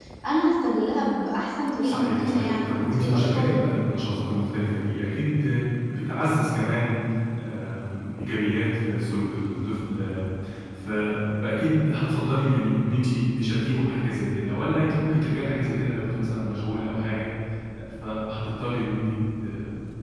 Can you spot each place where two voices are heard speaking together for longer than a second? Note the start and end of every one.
1.8-3.6

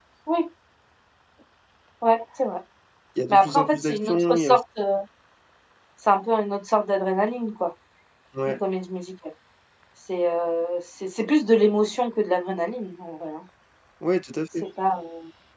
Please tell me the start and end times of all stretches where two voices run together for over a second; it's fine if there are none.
3.3-4.5

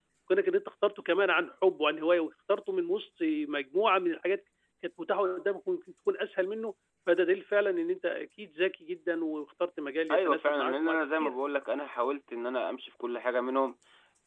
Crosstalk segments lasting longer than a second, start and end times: 10.1-11.4

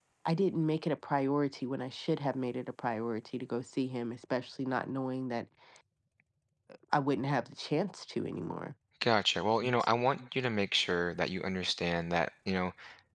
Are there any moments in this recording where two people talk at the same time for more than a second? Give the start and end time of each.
none

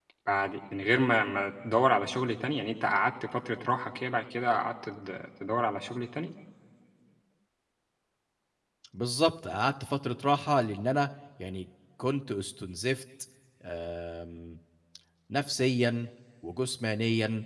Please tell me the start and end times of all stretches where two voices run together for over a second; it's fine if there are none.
none

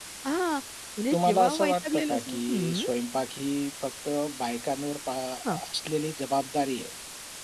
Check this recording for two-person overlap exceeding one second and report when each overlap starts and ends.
1.1-2.8

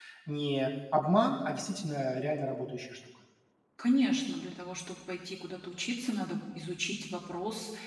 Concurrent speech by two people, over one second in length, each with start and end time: none

